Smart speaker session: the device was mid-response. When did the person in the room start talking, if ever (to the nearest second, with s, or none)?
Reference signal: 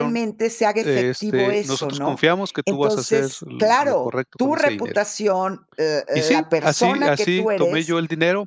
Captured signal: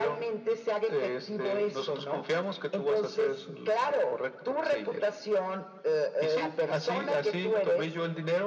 none